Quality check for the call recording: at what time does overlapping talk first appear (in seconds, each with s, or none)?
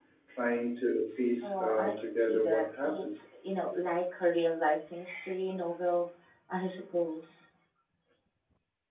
1.4 s